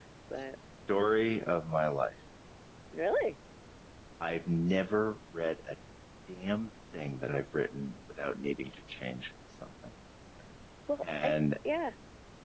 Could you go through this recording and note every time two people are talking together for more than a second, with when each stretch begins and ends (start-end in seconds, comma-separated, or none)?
none